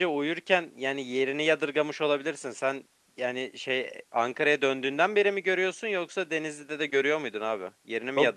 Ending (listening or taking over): taking over